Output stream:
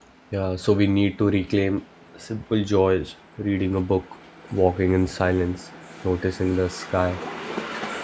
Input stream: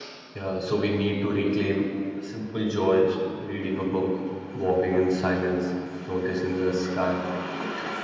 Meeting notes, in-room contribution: none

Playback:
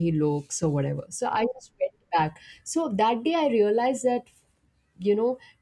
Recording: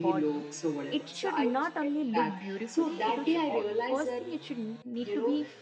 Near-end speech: present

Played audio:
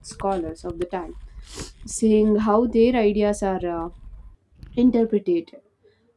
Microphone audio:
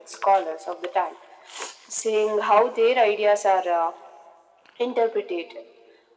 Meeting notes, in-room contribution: none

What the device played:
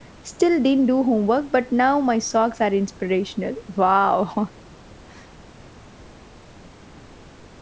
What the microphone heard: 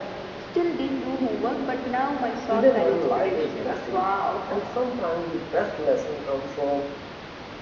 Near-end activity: present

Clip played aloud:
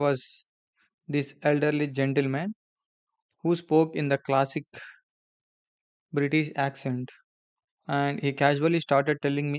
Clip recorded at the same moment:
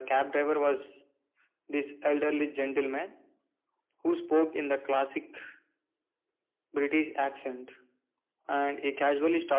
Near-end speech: none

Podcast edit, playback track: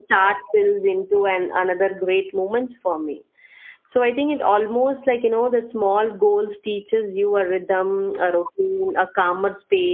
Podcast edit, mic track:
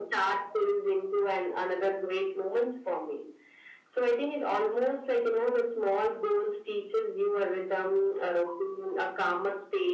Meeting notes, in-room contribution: none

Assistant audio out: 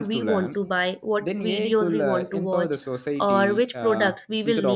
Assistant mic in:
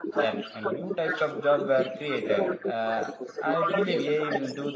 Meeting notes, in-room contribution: present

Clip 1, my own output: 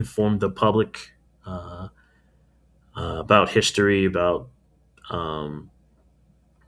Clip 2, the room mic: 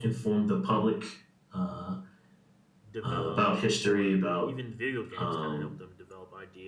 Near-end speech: present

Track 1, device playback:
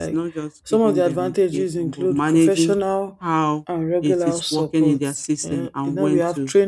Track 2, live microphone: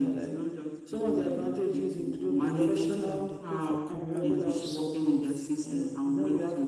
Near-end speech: present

